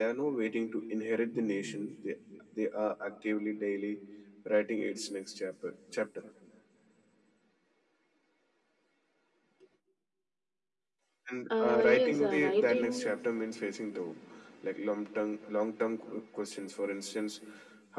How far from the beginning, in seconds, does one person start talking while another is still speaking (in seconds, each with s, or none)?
11.5 s